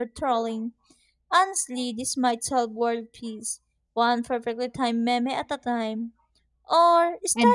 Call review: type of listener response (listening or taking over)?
listening